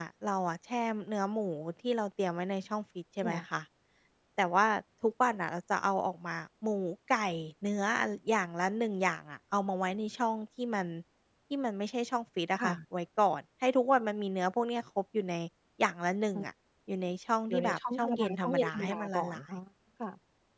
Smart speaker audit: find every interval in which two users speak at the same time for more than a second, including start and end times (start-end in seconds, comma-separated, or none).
17.5-19.4